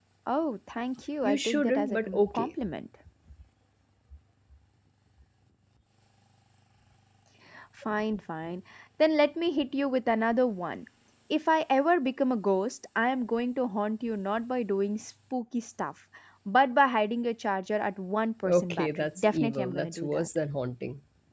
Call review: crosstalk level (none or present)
present